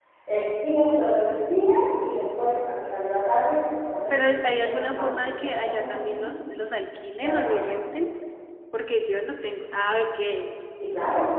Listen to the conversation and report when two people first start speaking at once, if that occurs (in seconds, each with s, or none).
4.1 s